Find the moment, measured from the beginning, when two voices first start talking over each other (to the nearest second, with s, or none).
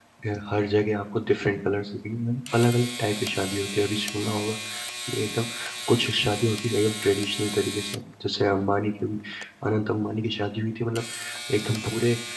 none